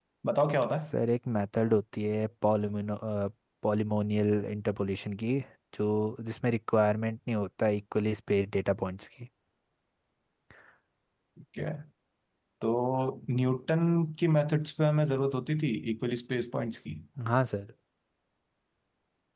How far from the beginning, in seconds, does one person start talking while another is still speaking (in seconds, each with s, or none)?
none